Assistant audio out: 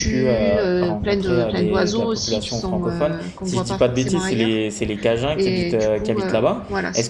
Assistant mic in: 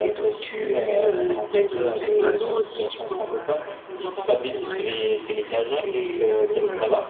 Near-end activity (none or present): none